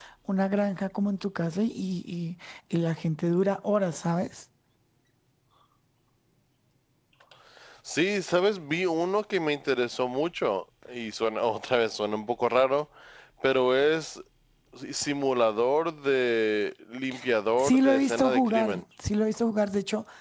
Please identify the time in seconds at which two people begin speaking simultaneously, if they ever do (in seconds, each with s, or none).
17.6 s